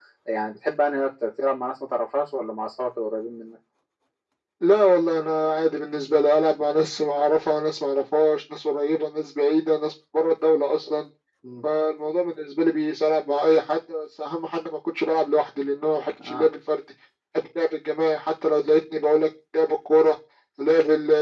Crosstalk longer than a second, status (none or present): none